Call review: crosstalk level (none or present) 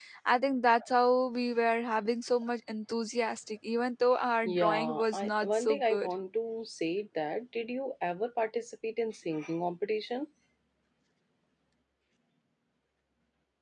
present